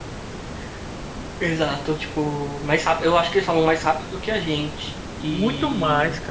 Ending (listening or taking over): taking over